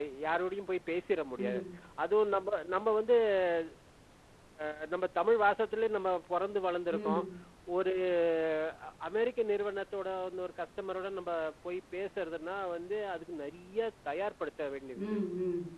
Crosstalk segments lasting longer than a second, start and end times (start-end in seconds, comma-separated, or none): none